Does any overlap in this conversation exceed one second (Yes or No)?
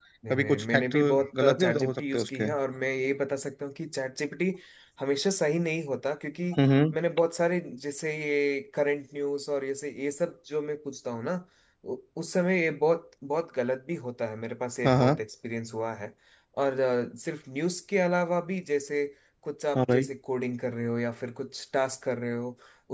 Yes